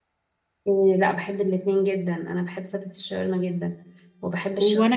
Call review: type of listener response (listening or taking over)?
taking over